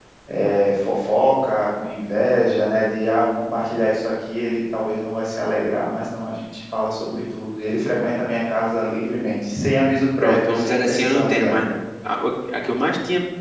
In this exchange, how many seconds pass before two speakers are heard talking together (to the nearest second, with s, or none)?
10 s